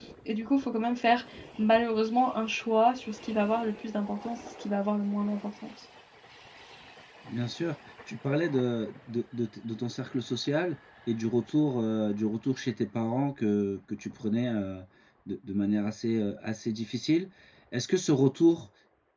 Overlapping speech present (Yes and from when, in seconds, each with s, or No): No